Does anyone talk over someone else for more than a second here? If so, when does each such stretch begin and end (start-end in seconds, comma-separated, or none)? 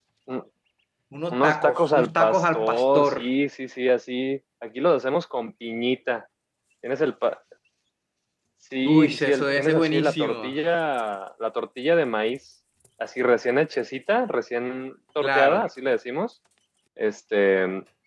1.3-3.1, 8.8-10.5